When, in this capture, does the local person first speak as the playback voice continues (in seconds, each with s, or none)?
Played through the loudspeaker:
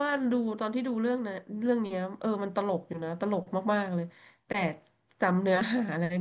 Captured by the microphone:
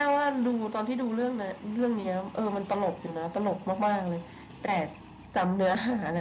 none